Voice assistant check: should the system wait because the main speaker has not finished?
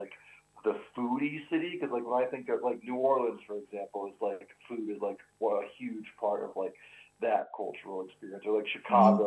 No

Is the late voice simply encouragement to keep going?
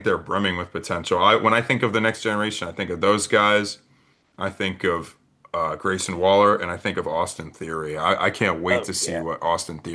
Yes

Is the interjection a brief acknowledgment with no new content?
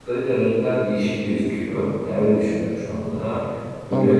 No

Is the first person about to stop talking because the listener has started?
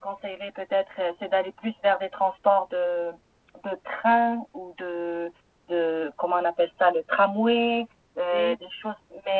No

